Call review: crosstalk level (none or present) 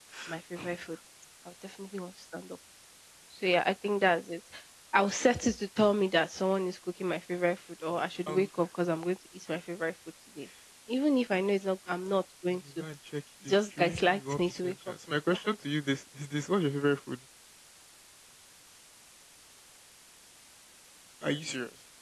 present